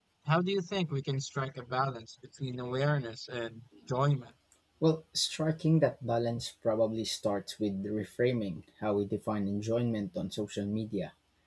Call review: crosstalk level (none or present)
none